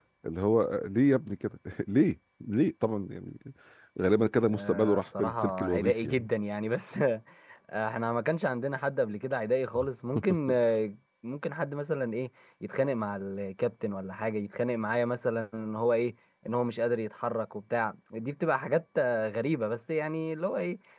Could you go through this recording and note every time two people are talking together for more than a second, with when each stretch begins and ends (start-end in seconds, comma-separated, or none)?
4.5-6.3